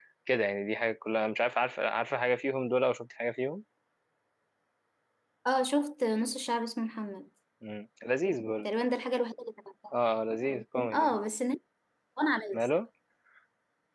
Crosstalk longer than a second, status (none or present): none